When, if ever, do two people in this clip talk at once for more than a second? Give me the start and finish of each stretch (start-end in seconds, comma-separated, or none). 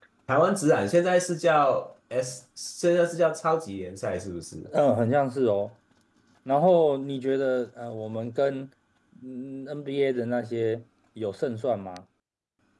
none